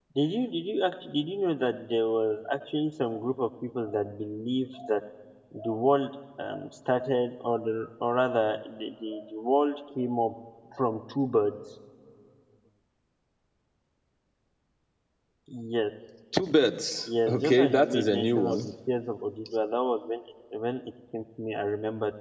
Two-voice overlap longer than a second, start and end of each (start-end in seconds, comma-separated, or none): 17.3-18.6